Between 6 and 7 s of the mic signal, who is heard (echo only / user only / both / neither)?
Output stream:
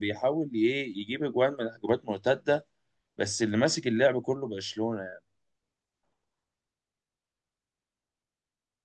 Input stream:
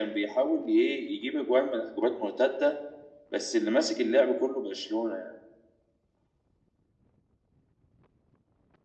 neither